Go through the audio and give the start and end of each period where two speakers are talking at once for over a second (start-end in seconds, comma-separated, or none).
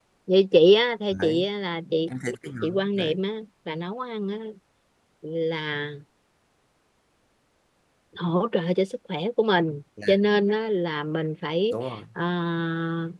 none